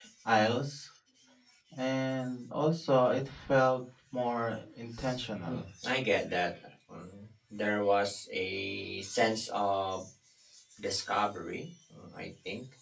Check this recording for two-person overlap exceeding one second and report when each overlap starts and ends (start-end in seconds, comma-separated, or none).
none